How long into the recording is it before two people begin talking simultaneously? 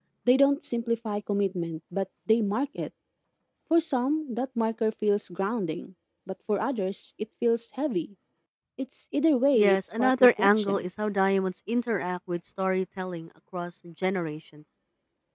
10 s

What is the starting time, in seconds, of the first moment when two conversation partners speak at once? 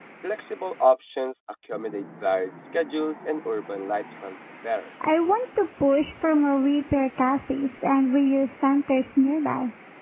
none

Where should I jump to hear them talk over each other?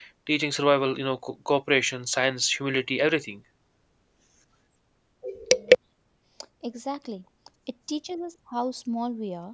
none

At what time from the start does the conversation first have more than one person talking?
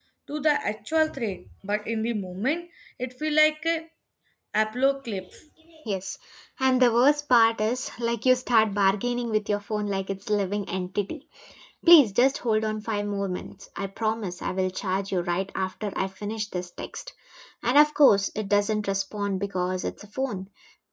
none

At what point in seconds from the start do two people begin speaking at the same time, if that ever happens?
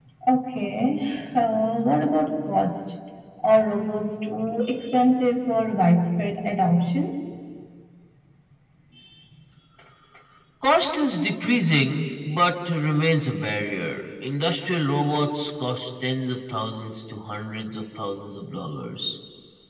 none

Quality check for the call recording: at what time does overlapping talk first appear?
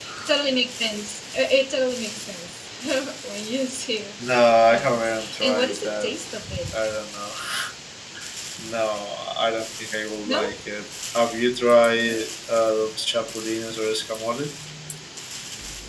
5 s

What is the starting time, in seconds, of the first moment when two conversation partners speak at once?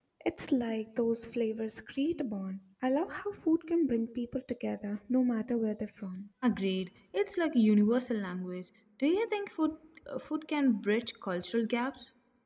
none

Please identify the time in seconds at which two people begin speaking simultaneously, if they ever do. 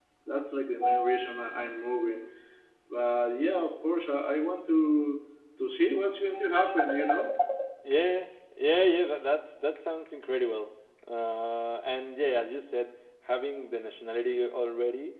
none

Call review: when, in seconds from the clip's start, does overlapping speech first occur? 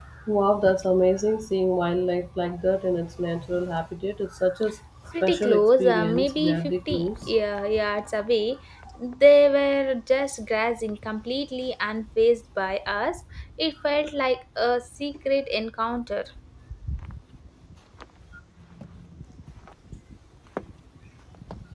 5 s

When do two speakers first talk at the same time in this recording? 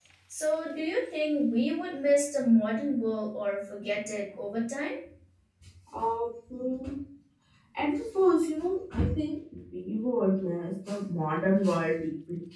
none

